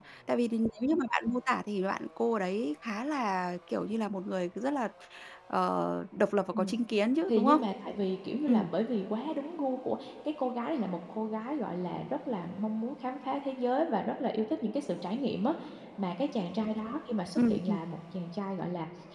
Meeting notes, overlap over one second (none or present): none